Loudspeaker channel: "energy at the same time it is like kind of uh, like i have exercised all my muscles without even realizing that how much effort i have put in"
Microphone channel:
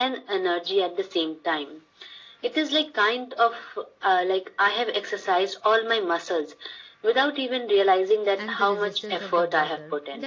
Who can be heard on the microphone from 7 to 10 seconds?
both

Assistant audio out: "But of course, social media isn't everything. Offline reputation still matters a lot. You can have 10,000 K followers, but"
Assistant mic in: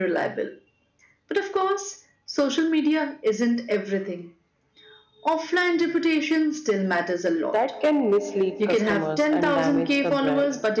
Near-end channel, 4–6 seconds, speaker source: echo only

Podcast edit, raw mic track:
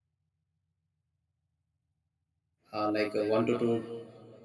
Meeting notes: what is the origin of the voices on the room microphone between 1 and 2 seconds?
neither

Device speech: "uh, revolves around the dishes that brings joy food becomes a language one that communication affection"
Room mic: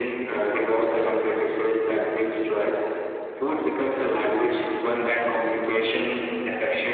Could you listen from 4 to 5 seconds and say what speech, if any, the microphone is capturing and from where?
echo only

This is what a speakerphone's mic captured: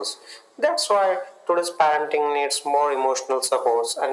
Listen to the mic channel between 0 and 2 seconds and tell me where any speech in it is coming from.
echo only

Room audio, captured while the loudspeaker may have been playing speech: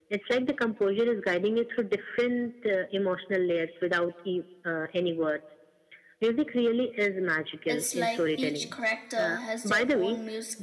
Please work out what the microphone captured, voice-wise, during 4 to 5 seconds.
echo only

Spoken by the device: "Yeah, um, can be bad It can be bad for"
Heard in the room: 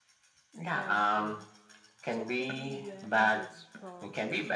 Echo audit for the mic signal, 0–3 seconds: both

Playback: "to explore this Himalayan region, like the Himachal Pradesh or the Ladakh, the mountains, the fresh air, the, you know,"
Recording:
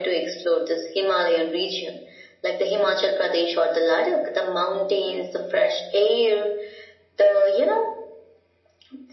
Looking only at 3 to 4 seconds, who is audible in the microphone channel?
echo only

